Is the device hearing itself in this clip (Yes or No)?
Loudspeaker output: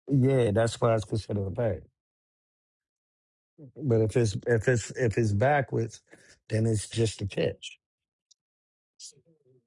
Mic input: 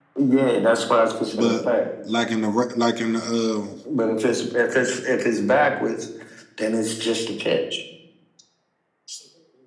Yes